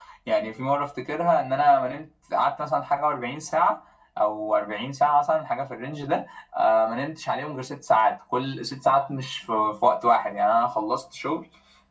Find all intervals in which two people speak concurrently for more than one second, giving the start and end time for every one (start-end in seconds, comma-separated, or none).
none